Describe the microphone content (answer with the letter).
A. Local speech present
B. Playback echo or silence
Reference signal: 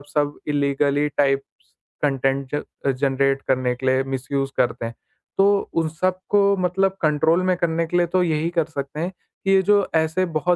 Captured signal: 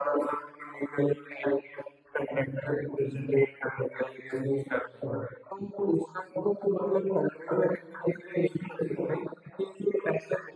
B